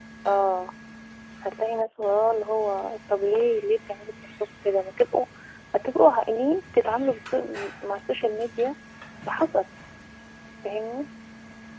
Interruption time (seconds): none

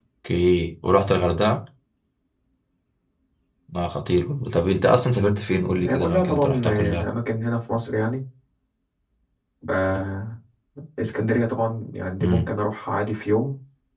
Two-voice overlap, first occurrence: 6 s

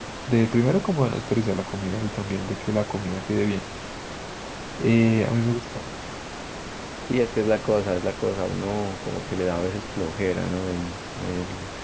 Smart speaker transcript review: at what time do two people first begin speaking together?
none

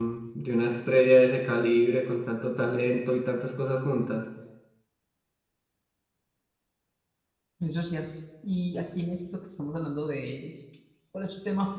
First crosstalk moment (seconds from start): none

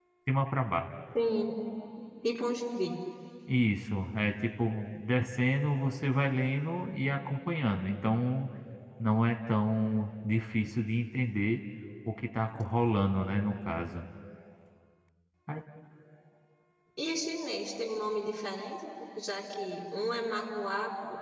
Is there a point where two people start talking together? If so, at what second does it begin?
none

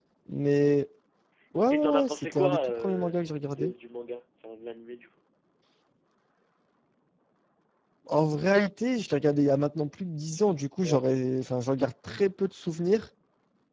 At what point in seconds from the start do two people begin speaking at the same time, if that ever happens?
2 s

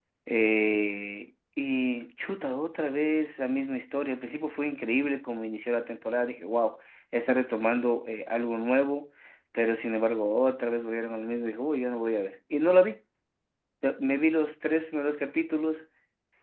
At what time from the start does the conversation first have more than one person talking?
none

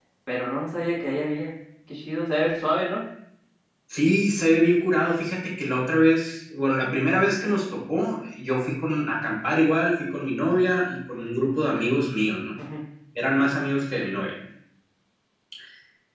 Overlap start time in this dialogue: none

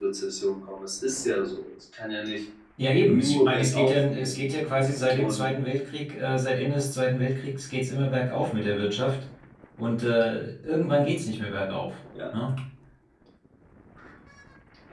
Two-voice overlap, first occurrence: 3 s

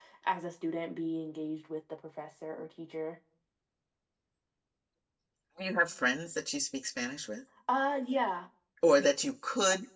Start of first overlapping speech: none

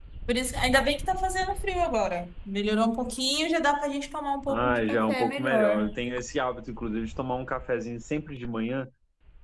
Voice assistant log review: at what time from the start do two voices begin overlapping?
4 s

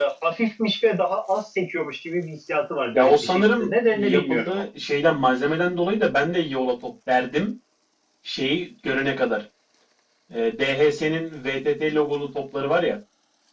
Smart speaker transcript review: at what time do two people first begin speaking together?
3 s

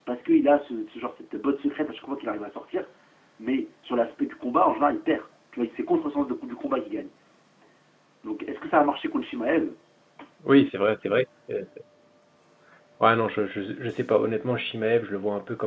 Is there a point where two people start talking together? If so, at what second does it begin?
none

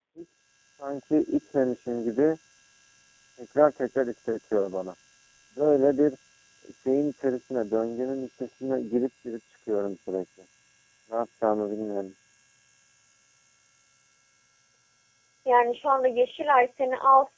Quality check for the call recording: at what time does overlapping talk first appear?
none

